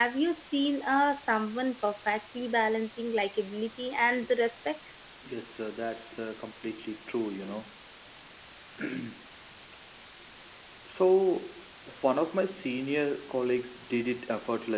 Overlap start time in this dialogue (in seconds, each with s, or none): none